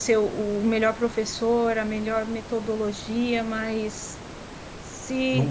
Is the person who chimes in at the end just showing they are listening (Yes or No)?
Yes